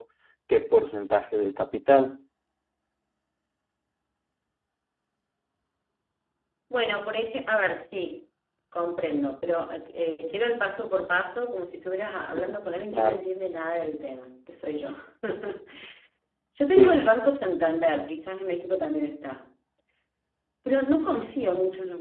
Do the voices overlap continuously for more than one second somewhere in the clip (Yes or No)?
No